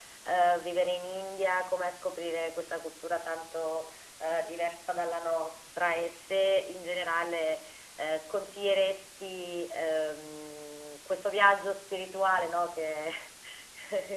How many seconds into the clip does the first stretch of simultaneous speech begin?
none

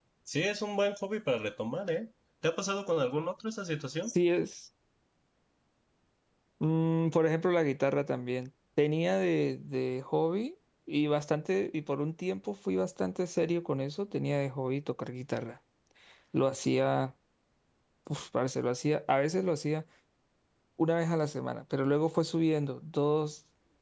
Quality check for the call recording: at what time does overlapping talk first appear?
none

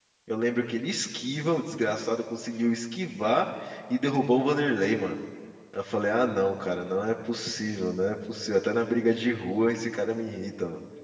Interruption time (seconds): none

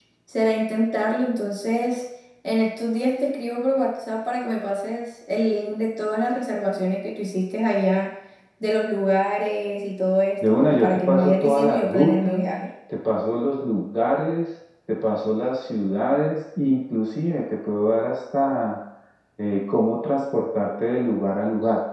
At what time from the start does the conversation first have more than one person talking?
10.4 s

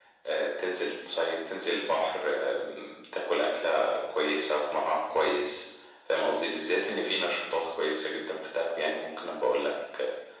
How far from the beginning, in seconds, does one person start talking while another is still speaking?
none

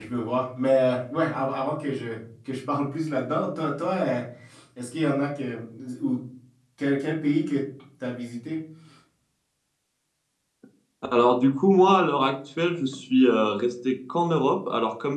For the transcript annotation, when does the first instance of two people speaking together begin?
none

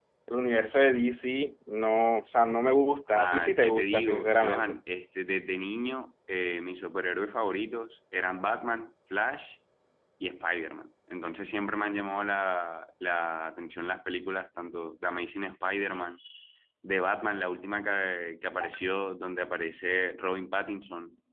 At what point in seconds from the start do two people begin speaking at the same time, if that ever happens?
3.1 s

